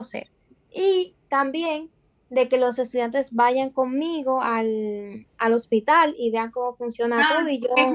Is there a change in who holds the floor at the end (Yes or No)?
Yes